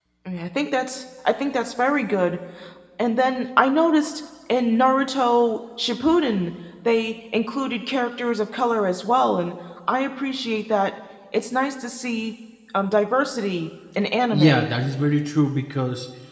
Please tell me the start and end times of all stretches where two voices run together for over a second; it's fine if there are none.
none

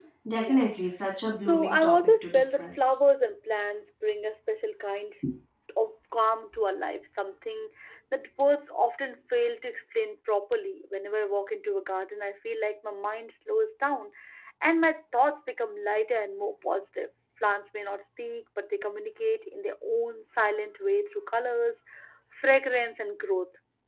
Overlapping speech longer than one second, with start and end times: 1.4-2.9

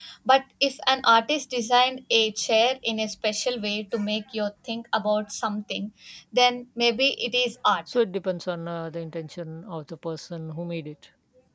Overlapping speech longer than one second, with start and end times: none

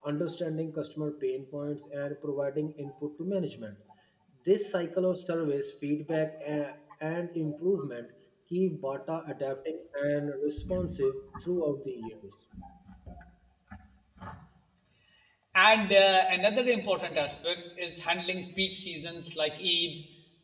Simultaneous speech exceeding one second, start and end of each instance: none

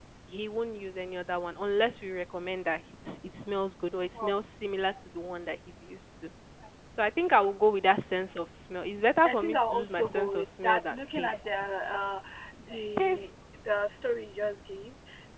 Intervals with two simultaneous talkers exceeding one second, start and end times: 9.2-11.4

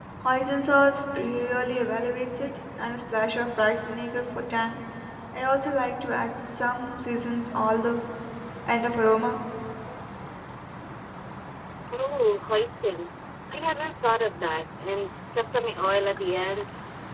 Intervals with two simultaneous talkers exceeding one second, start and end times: none

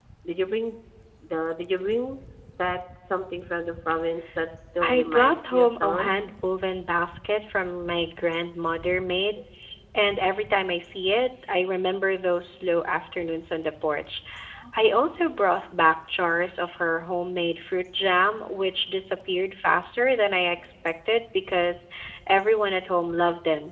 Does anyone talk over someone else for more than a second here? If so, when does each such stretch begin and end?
4.9-6.1

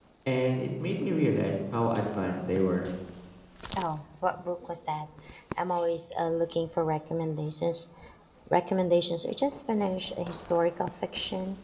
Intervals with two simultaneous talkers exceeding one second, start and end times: none

